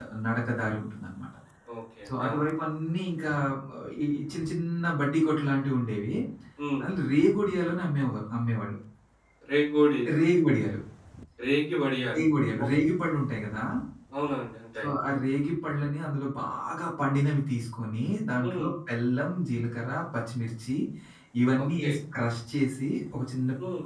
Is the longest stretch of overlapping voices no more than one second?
Yes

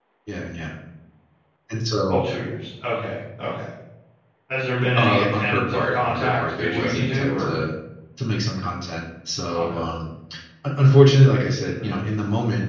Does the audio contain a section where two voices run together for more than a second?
Yes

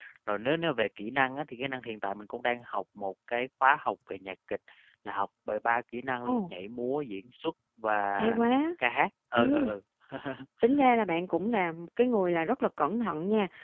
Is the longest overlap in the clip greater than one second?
No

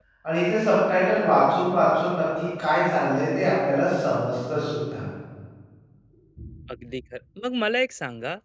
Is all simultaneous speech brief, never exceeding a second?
Yes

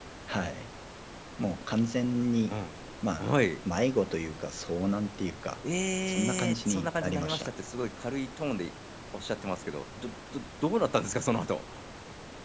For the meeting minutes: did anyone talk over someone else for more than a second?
Yes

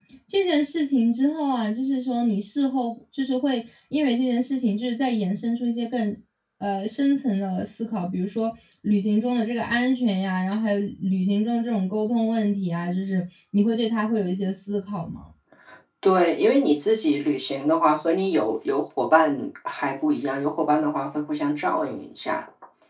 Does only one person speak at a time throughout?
Yes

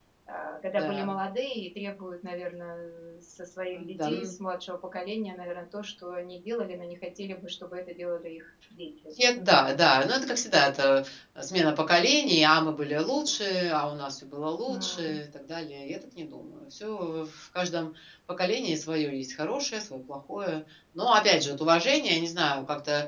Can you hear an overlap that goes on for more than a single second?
No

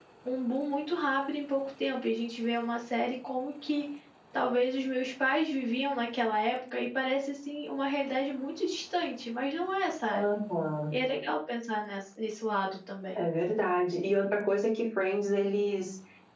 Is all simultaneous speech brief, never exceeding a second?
Yes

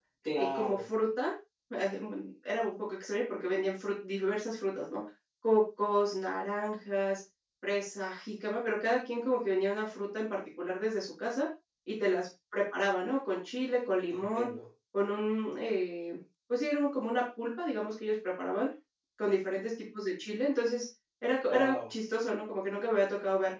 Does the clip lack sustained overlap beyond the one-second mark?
Yes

